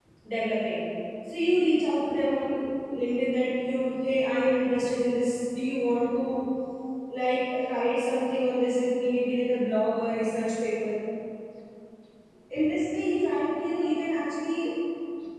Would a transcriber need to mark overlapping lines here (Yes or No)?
No